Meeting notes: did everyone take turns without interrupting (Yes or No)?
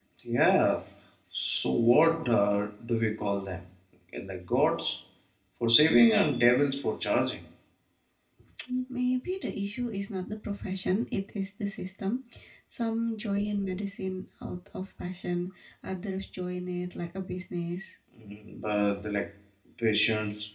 Yes